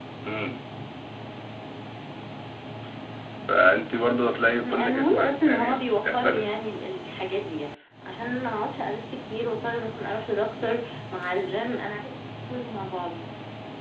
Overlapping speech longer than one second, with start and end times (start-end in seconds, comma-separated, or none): 4.6-6.5